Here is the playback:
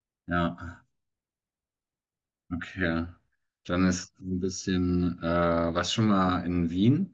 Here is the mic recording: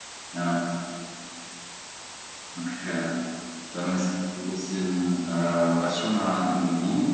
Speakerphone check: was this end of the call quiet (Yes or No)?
Yes